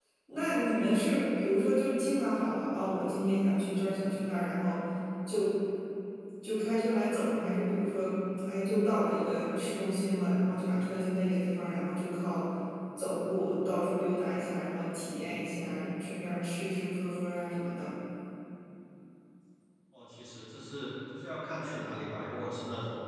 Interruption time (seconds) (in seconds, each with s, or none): none